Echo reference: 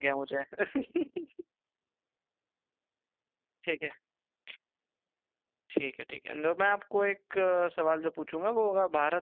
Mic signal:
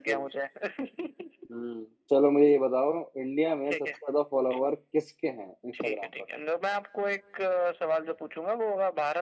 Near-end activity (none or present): present